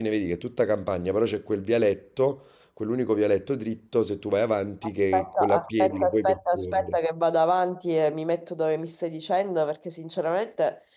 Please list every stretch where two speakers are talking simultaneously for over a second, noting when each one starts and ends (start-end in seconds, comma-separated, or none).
5.1-7.0